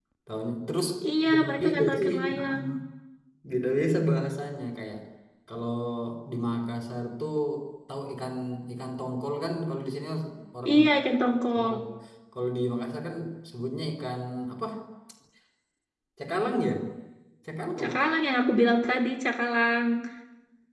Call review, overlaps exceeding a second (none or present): present